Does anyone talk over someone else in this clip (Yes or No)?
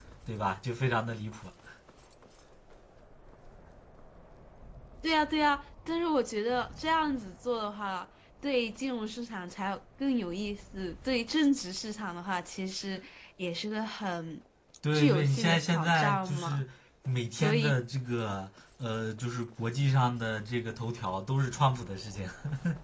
Yes